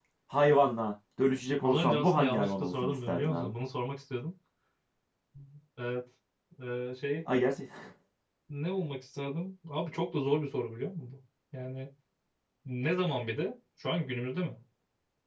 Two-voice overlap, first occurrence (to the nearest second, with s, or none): 2 s